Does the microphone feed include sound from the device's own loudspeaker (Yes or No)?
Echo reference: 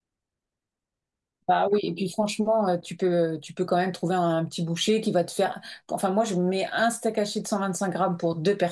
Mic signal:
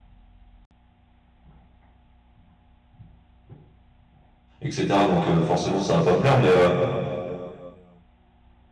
No